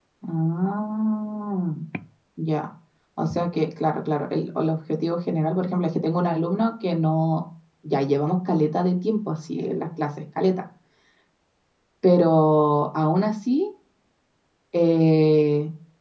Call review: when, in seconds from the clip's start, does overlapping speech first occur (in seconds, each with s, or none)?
none